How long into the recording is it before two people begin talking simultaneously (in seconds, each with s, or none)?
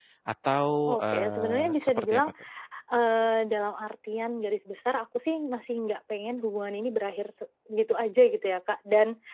0.8 s